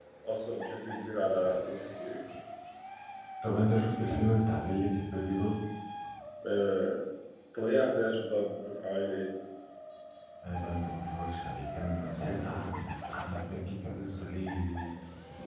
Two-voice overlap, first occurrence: none

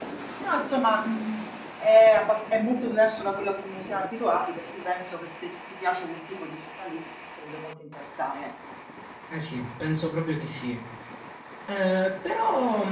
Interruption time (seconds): none

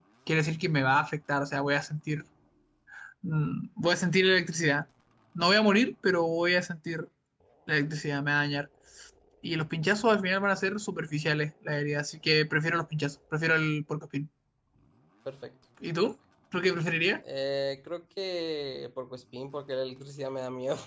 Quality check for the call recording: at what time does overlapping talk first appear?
none

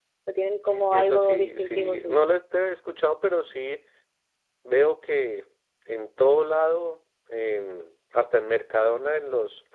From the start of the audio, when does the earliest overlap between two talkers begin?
0.7 s

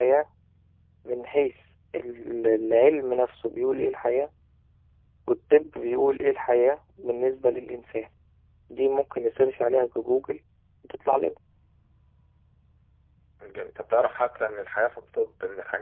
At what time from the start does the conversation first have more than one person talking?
none

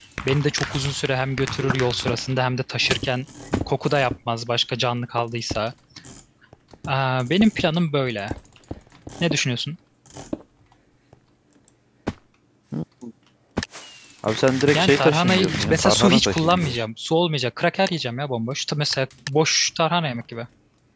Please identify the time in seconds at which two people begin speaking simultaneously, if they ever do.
14.7 s

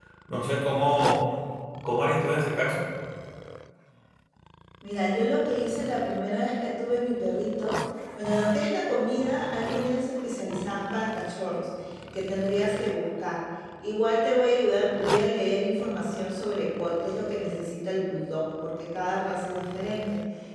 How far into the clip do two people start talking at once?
none

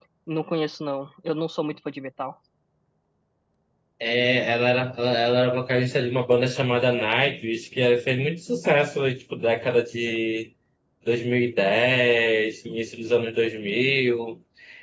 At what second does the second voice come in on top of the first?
none

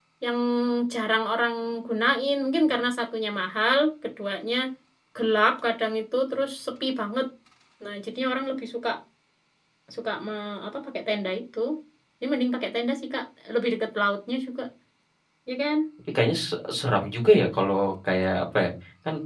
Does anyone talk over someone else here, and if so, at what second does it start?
none

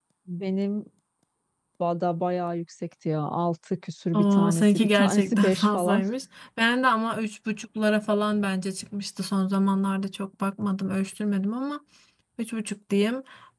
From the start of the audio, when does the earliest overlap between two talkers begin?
4.1 s

